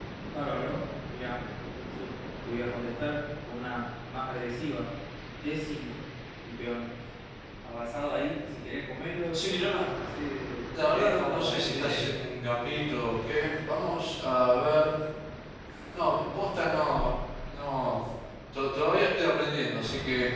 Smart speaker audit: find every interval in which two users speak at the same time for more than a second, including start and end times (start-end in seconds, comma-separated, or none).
10.8-12.2